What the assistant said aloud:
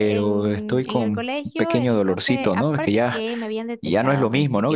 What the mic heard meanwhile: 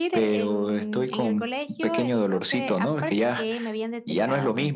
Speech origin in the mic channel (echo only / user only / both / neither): echo only